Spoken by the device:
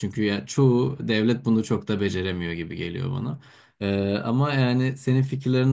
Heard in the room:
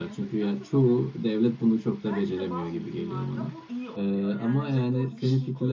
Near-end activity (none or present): present